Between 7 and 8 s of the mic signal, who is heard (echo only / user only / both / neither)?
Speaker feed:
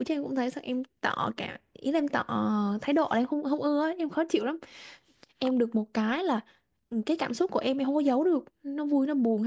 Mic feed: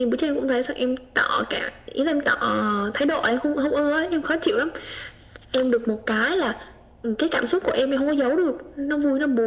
echo only